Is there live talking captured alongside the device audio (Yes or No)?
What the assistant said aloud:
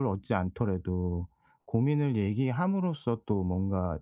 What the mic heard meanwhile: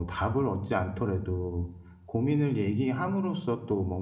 No